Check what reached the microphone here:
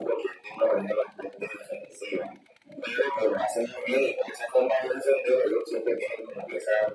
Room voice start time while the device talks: none

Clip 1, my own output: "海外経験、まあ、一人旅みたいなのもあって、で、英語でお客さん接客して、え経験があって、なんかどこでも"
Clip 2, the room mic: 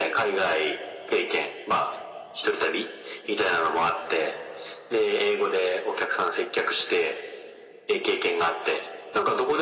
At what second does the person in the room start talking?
none

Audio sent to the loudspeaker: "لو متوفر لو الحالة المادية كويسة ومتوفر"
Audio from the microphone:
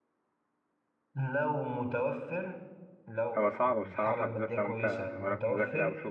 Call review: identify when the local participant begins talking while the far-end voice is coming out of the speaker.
3.4 s

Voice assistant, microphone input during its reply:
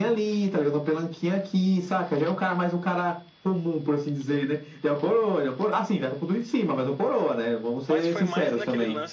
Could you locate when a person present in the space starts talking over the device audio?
7.9 s

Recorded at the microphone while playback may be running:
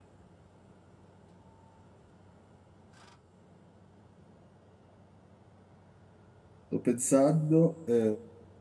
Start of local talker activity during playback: 6.7 s

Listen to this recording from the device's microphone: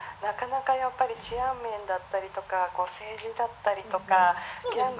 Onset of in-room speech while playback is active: 3.8 s

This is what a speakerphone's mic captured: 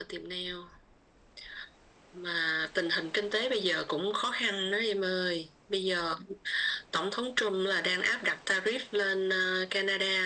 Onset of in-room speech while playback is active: none

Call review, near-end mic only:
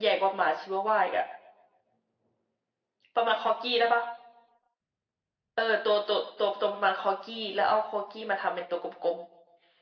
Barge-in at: none

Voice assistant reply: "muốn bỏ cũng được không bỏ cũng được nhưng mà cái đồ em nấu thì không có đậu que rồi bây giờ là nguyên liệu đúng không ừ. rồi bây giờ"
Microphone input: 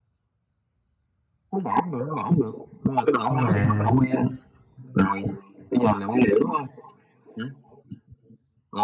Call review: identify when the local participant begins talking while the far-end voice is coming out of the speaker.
3.3 s

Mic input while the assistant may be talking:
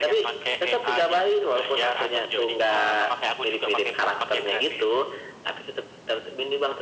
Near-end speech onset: none

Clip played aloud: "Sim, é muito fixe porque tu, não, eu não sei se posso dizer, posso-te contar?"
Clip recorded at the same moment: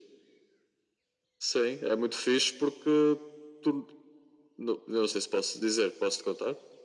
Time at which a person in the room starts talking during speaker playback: none

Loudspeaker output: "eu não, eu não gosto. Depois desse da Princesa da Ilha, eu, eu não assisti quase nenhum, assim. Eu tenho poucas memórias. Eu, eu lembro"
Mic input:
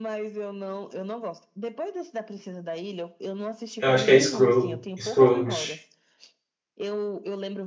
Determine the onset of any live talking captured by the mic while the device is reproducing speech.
3.8 s

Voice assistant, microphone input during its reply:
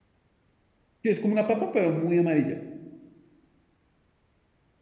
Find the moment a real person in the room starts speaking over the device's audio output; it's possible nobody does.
1.0 s

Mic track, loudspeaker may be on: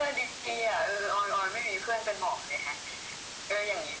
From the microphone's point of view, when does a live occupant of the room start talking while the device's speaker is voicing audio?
none

